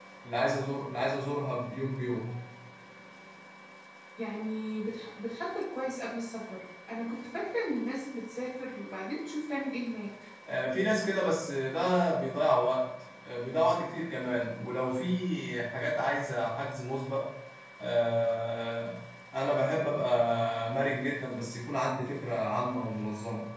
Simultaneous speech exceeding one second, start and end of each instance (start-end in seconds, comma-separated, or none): none